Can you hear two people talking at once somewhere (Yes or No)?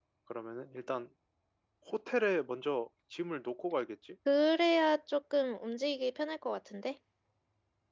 No